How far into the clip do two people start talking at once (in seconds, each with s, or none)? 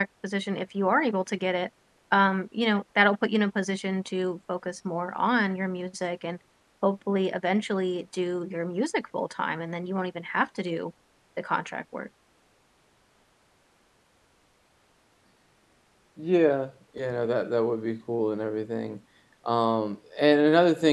none